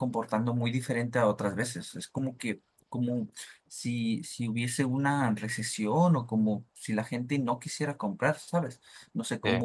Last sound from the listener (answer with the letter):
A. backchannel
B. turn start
A